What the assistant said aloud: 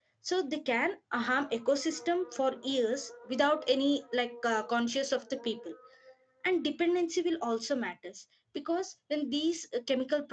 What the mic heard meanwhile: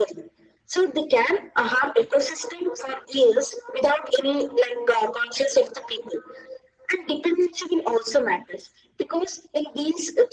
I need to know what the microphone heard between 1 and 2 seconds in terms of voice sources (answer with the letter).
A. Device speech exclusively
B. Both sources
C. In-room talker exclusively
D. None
A